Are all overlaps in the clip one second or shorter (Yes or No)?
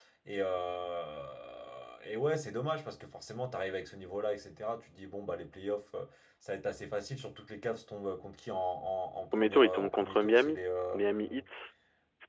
No